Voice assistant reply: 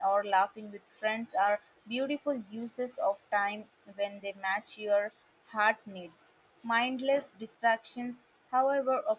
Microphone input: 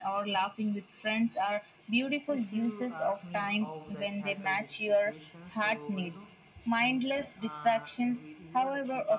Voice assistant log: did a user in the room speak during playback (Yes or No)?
Yes